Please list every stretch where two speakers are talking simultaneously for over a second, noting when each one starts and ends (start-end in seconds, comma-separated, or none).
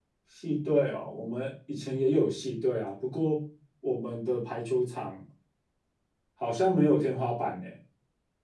none